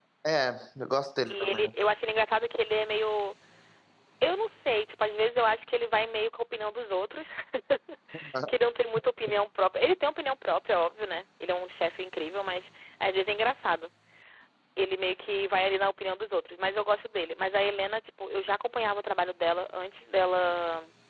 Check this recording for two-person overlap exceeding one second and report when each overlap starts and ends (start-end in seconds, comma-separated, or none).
none